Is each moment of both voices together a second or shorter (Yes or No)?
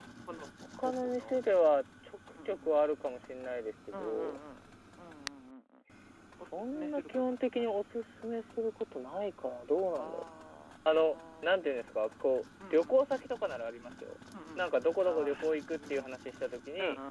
No